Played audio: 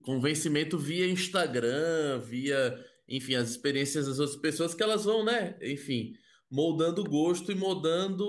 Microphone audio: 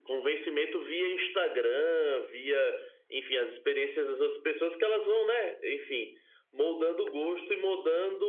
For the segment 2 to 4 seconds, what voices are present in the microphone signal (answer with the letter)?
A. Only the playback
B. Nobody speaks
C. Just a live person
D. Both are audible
A